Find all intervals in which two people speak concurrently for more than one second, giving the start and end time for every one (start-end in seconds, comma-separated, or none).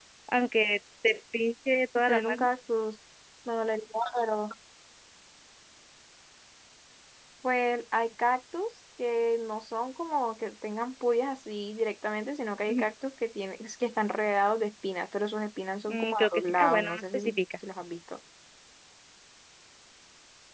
15.9-17.2